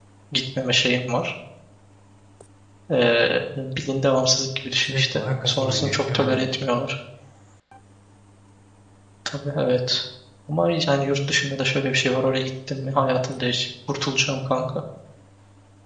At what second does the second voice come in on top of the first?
4.9 s

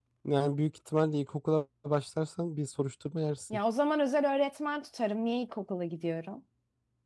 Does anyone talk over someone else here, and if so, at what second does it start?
none

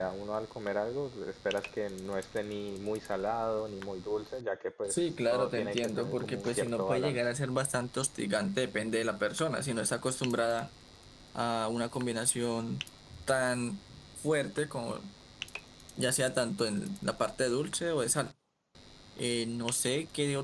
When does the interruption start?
4.9 s

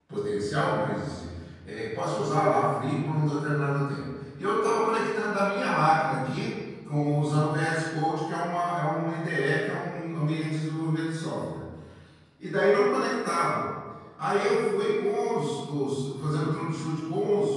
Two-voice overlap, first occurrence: none

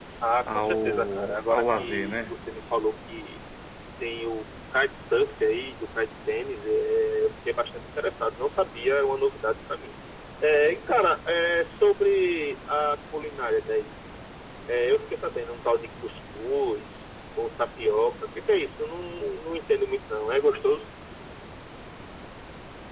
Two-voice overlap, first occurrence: 0.5 s

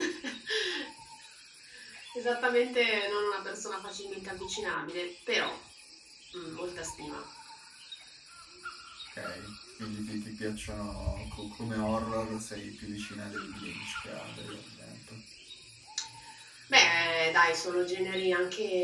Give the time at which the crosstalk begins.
none

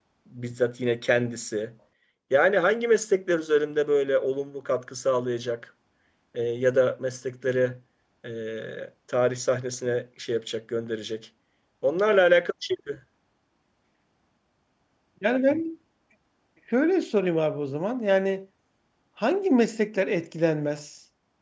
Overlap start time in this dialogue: none

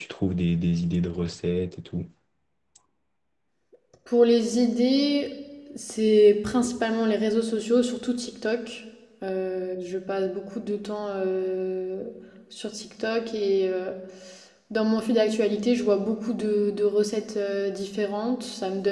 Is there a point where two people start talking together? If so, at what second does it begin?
none

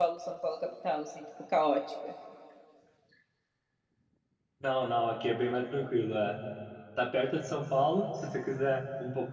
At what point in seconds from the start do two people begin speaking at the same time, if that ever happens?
none

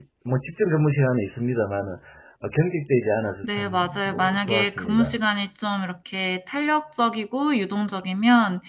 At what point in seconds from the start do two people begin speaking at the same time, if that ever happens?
3.4 s

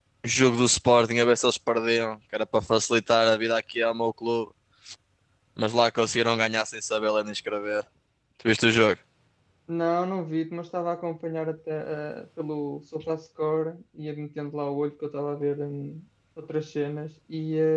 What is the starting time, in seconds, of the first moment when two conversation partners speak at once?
none

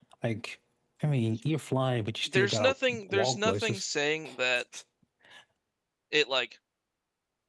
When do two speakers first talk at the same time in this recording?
2.3 s

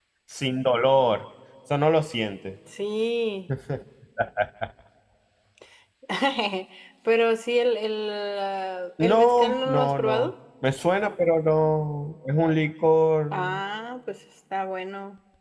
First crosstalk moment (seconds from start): 9.0 s

